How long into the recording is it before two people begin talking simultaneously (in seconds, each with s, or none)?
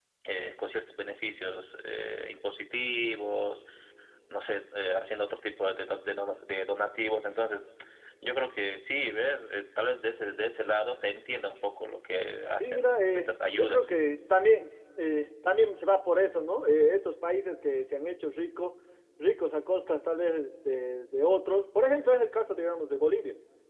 12.6 s